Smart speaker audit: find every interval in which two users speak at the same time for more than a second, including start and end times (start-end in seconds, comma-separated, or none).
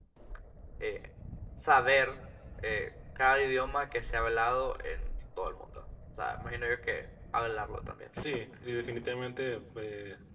none